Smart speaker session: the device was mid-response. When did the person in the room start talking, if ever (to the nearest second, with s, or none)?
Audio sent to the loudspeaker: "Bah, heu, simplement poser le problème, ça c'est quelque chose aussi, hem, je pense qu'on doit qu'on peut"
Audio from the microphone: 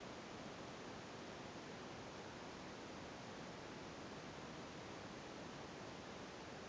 none